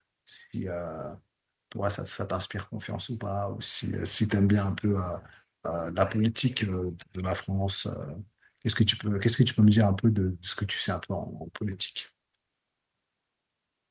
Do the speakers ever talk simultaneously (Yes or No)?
No